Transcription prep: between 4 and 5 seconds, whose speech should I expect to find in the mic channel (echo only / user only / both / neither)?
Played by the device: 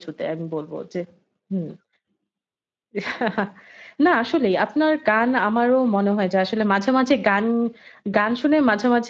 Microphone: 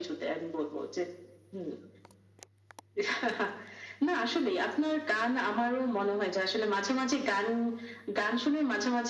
echo only